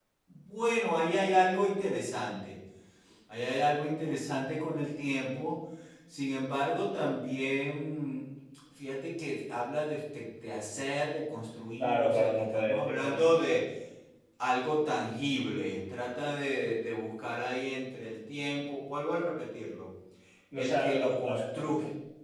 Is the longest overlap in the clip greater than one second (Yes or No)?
Yes